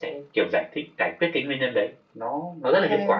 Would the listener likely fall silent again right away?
Yes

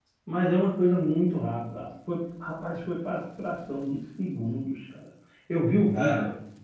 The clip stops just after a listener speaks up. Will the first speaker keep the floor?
Yes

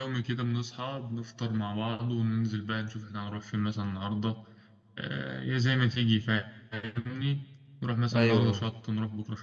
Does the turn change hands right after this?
No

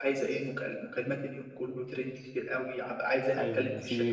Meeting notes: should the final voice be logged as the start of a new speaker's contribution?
Yes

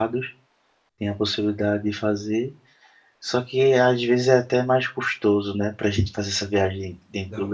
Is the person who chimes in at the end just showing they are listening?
No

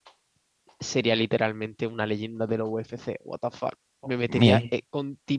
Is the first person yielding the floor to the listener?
No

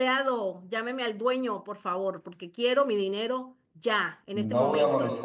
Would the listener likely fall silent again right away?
No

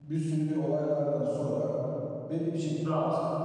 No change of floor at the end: Yes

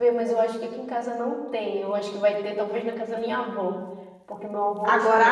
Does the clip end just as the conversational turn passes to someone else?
Yes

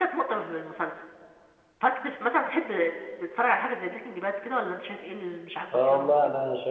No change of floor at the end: No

